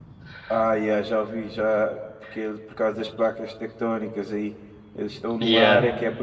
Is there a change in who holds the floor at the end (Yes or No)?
No